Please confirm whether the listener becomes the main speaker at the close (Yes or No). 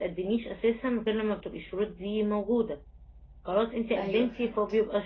No